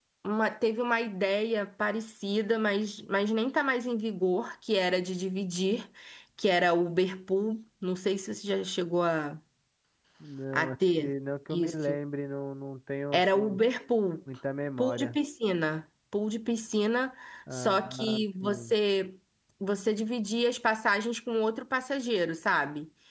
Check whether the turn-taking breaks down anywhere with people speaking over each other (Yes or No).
Yes